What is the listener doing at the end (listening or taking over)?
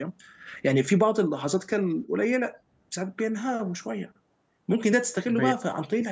listening